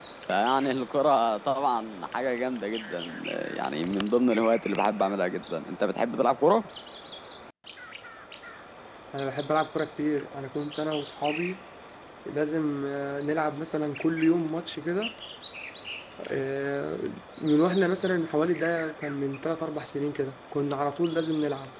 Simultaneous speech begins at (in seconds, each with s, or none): none